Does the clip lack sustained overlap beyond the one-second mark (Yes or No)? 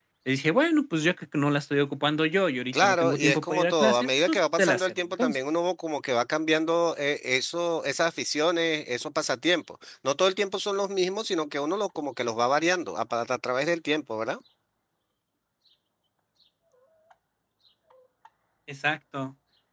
No